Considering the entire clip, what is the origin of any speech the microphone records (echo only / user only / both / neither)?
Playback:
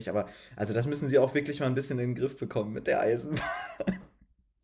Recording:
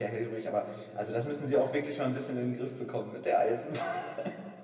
echo only